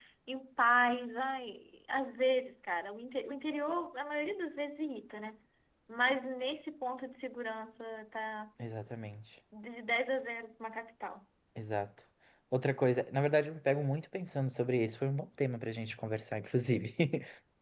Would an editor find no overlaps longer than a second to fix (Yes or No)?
Yes